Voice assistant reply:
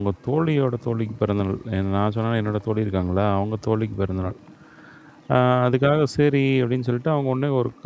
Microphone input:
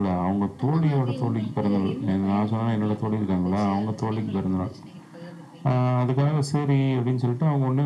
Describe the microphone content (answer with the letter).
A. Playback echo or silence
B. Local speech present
B